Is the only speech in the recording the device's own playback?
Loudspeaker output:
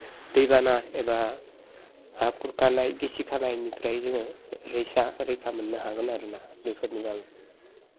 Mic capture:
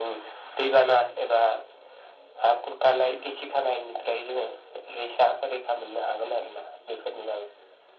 Yes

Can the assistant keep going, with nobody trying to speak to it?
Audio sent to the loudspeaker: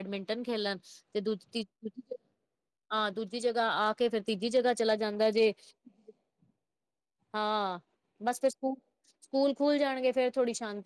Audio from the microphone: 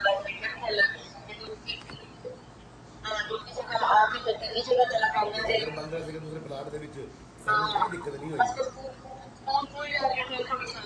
No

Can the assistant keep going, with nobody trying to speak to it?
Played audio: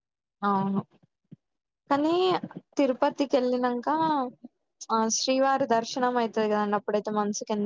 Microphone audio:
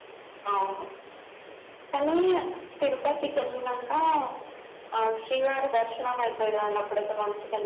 Yes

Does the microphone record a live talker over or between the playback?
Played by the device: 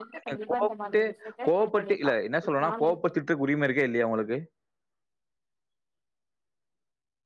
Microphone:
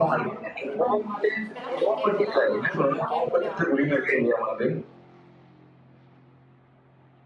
Yes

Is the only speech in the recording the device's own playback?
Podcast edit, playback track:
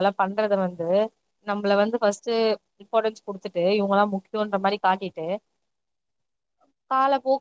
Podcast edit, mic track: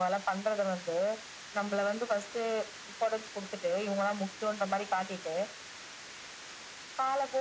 Yes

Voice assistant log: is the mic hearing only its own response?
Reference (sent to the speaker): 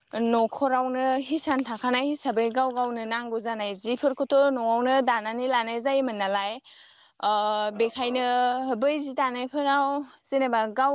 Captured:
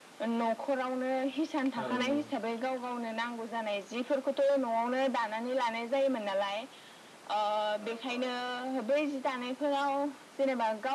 No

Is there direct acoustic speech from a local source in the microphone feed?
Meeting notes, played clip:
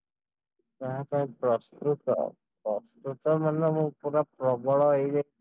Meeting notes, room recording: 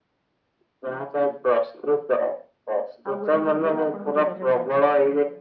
Yes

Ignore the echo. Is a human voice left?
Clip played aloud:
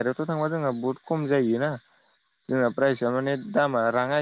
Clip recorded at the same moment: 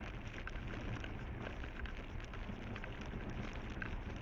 No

